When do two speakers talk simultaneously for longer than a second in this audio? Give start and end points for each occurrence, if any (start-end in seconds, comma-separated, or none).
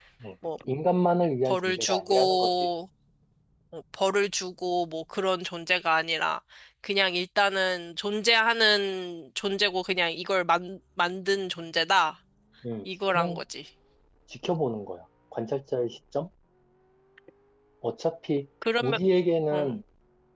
1.4-2.7